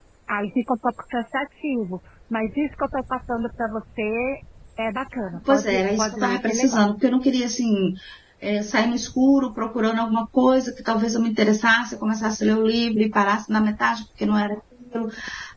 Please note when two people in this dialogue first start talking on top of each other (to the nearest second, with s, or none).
5 s